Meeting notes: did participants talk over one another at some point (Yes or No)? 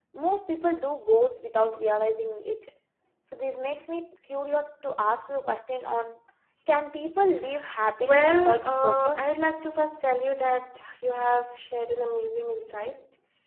Yes